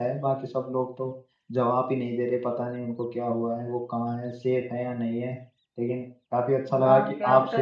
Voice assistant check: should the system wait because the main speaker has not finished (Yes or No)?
No